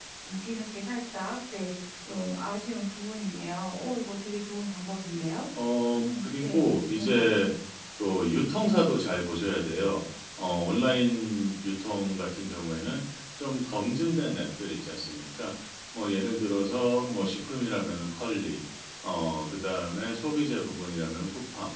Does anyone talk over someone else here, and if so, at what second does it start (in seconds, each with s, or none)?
5.9 s